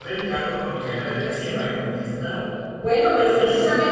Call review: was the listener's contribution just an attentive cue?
No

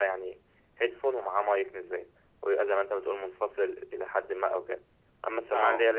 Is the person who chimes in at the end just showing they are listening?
Yes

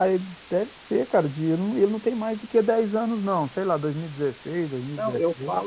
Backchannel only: No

